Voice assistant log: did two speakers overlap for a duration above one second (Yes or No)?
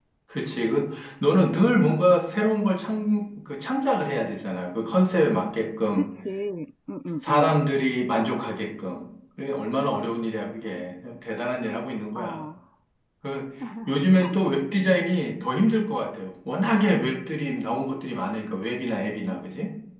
No